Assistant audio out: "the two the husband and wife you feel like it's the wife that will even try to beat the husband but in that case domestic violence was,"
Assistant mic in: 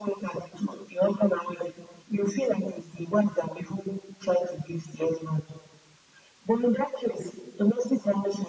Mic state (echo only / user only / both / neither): echo only